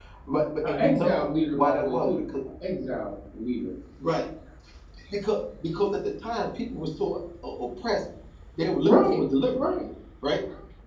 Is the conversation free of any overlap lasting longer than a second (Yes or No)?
No